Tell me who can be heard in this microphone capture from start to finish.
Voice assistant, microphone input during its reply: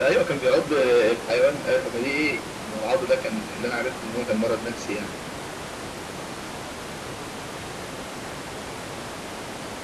echo only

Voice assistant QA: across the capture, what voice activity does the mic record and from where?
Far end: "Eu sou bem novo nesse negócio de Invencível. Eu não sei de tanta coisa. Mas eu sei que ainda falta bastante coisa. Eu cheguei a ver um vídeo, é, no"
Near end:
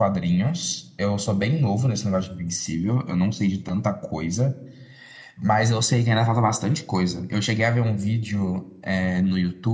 echo only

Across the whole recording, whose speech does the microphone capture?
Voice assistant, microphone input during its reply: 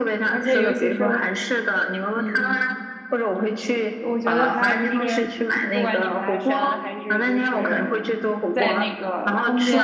both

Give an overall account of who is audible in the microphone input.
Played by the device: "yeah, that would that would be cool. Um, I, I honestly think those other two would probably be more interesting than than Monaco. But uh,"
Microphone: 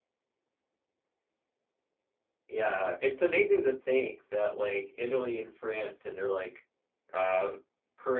user only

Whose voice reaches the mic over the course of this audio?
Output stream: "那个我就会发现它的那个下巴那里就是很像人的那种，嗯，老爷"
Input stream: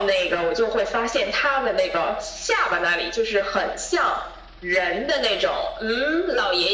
echo only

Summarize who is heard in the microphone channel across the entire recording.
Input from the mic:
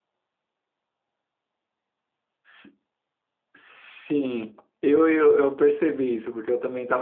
user only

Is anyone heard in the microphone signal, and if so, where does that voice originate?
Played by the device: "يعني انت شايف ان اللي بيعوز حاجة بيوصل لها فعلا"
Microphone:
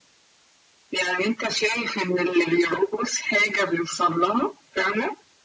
echo only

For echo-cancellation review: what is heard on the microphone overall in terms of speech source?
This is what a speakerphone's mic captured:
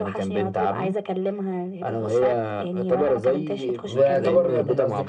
both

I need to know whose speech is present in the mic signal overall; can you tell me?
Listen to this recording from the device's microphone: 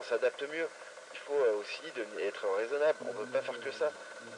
both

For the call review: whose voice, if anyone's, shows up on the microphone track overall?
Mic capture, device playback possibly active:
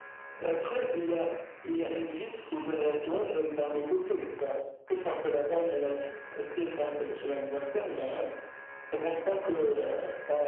echo only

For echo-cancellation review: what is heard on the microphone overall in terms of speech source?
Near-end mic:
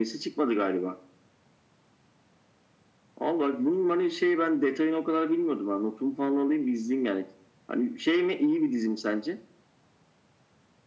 echo only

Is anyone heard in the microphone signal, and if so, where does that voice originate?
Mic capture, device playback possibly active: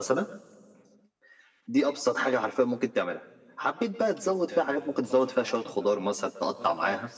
both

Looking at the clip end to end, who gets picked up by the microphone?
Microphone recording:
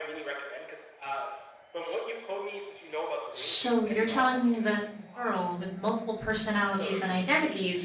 both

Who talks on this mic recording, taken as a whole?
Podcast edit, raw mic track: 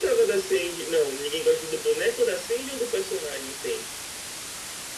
echo only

